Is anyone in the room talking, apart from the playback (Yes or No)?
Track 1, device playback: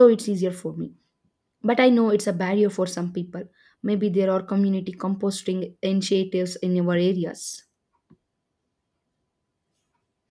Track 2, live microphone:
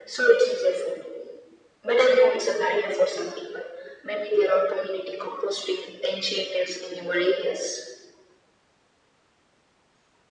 No